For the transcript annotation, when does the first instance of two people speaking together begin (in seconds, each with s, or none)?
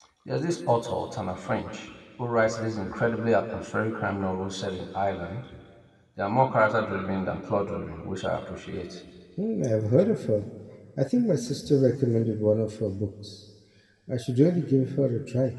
none